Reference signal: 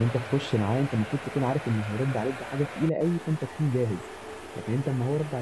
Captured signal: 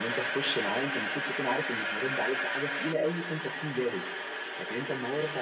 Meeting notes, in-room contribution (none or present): none